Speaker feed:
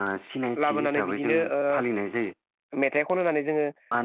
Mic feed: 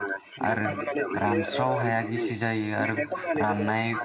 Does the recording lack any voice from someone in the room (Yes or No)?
No